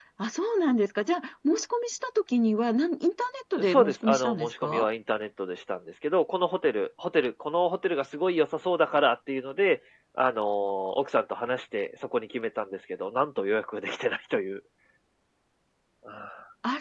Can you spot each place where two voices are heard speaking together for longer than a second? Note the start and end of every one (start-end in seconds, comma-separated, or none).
3.6-4.9